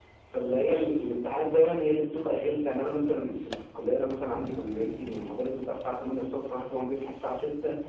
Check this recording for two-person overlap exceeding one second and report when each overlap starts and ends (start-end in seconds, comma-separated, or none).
none